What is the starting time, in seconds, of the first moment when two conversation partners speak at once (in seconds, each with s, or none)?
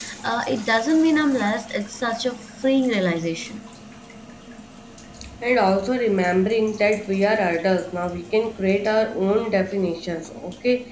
none